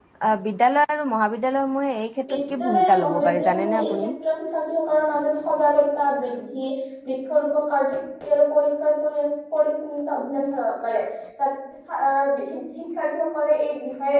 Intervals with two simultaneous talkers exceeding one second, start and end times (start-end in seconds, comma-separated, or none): 2.3-4.1